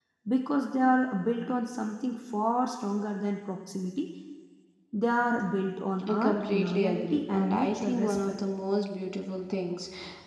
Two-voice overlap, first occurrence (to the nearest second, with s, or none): 6 s